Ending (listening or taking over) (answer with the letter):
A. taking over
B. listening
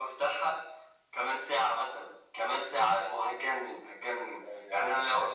A